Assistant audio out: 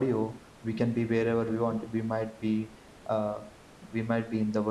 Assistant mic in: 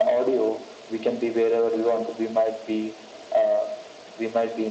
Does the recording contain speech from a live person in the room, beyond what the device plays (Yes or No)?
No